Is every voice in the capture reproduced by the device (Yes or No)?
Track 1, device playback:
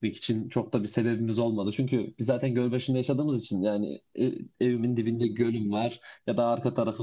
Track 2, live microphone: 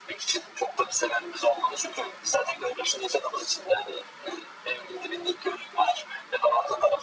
Yes